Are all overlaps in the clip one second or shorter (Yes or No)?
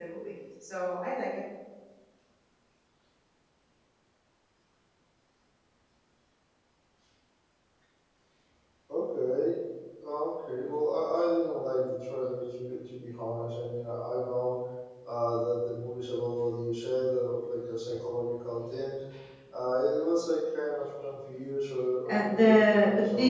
No